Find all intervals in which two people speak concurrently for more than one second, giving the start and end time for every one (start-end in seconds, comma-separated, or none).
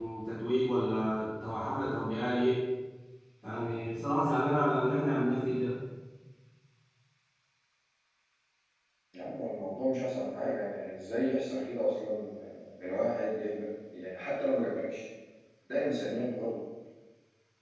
none